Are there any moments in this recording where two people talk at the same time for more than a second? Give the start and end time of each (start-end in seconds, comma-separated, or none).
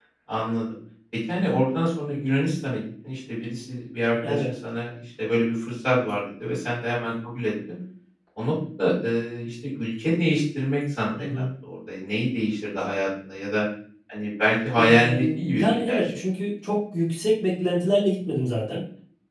14.8-16.2